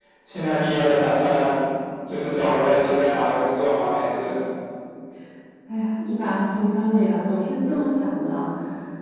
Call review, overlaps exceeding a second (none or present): none